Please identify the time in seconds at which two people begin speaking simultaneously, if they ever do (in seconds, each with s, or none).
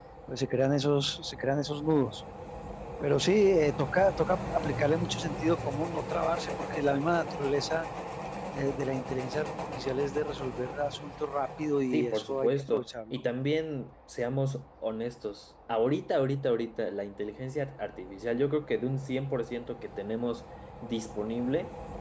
11.9 s